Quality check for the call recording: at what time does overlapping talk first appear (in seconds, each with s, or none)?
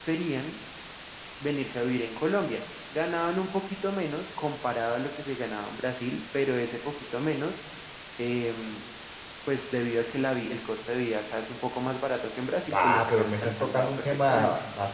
12.7 s